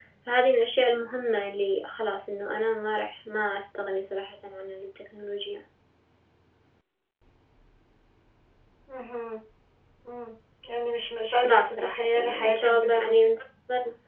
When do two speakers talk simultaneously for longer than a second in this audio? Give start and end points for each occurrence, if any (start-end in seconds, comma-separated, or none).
11.4-13.2